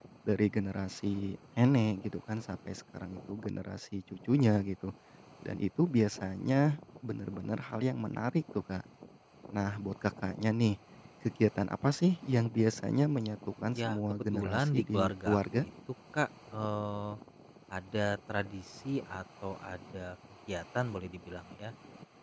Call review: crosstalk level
present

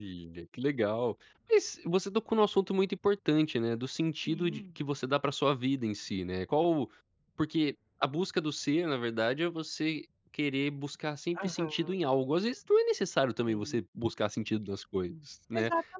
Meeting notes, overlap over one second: none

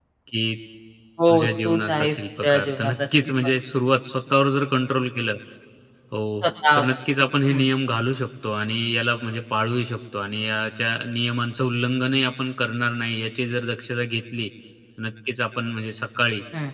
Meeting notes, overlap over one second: present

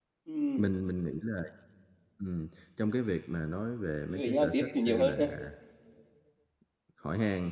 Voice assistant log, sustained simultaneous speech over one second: present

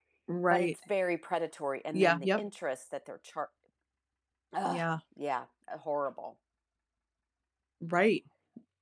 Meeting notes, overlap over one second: none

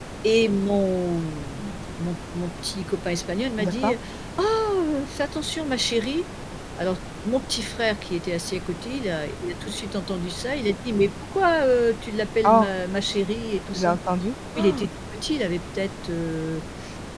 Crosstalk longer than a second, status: none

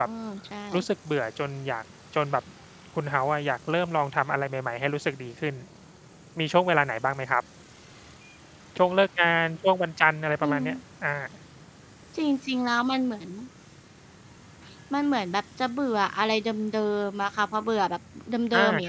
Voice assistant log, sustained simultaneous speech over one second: none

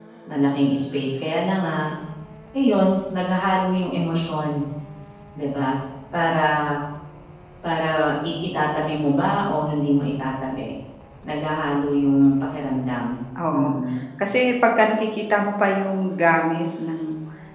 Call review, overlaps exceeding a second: none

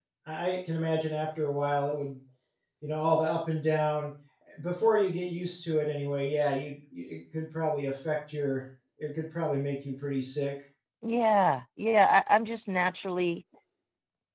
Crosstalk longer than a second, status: none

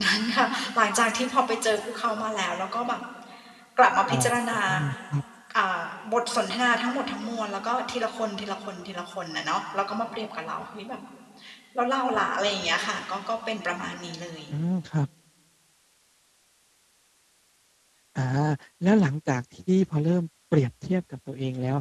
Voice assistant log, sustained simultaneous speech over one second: none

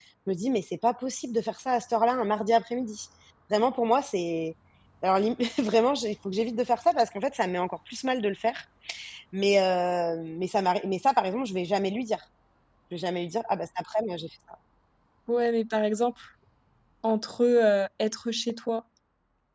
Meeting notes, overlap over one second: none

